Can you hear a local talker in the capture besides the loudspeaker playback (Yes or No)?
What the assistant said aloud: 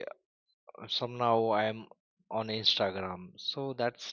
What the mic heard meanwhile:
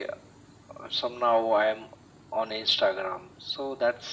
No